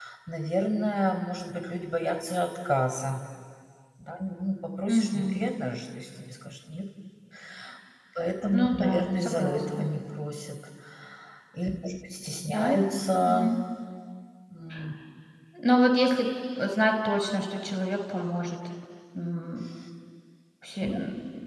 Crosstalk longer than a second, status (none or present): present